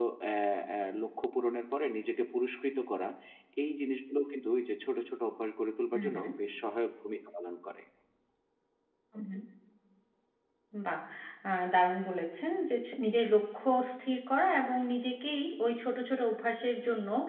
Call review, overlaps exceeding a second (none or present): none